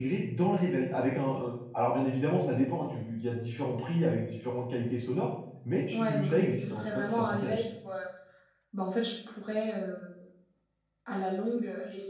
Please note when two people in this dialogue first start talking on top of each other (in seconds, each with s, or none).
5.9 s